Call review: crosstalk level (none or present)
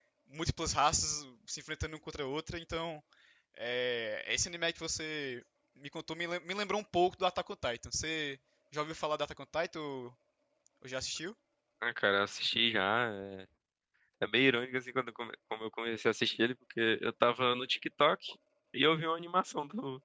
none